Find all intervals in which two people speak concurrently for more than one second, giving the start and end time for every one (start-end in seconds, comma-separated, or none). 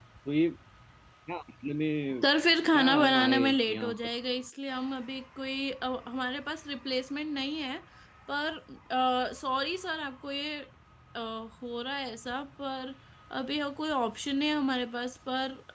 2.7-3.9